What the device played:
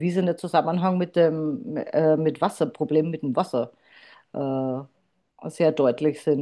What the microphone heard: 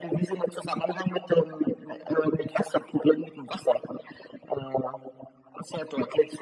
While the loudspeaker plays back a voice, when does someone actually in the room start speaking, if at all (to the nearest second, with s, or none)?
none